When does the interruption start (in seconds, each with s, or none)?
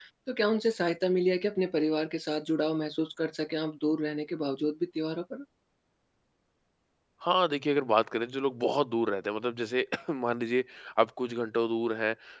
none